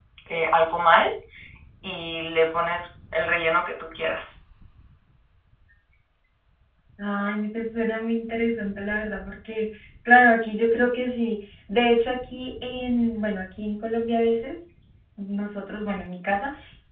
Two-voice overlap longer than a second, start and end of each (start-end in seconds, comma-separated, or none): none